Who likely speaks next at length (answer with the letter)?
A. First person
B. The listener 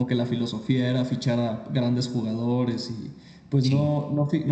A